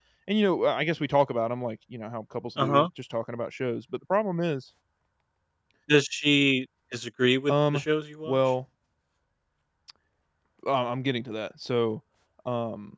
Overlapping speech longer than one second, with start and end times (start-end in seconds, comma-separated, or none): none